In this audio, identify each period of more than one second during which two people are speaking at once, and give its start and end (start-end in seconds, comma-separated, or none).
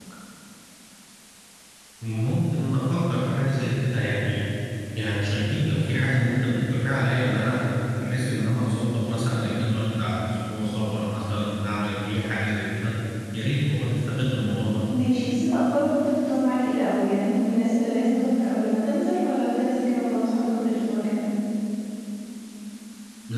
none